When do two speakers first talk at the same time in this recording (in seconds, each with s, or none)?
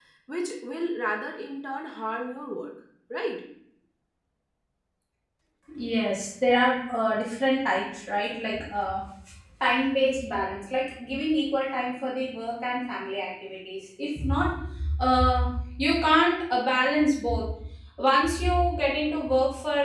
none